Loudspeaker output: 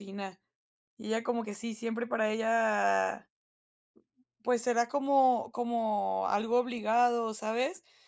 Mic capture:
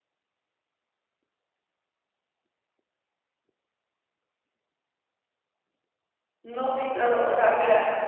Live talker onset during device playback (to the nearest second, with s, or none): 6 s